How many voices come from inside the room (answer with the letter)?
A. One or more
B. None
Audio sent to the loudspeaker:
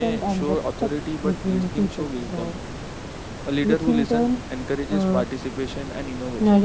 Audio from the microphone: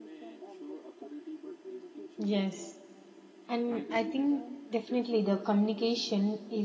A